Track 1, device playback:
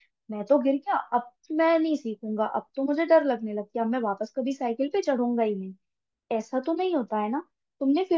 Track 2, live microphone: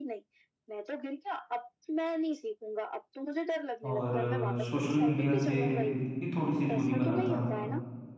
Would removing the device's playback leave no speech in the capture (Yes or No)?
No